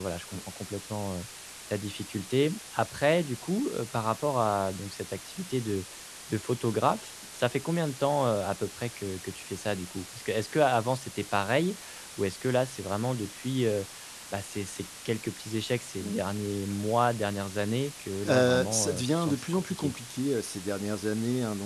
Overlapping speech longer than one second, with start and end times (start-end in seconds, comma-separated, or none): 18.3-19.9